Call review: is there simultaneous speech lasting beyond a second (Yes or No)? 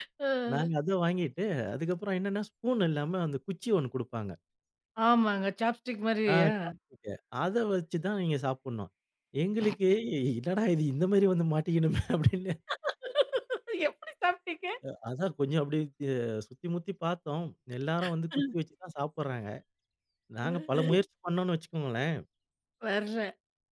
No